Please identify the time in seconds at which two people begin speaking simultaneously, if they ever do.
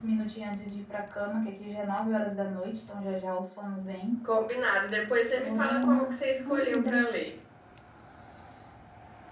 5.3 s

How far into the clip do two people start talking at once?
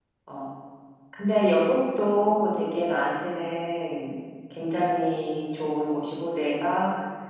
none

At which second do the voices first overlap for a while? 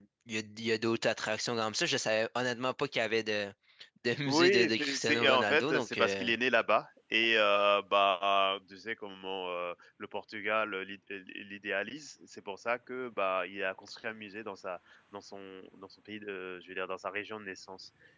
4.3 s

